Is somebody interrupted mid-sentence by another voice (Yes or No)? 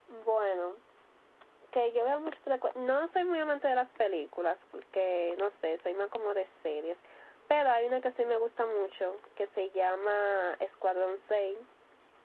No